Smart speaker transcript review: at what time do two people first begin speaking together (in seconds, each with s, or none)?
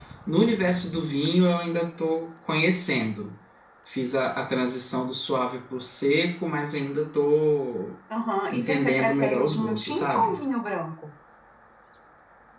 8.5 s